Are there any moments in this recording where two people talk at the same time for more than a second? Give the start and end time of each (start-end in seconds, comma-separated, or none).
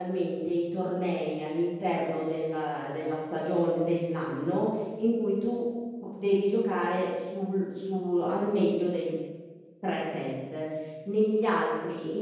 none